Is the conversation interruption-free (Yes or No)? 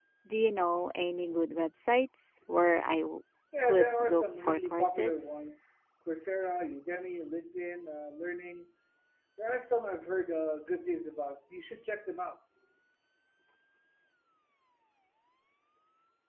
No